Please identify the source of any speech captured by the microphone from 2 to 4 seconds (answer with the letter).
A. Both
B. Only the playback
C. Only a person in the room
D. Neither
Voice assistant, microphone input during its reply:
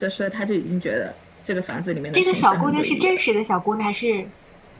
A